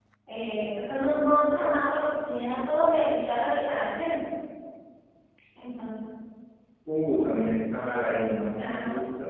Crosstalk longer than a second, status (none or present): none